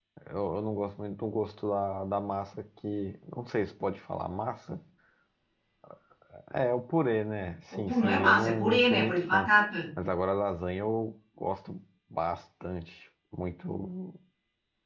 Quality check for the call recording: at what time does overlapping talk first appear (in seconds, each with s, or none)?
7.7 s